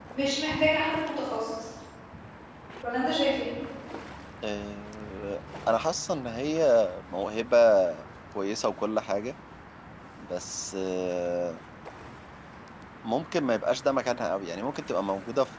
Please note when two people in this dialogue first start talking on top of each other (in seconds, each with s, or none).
none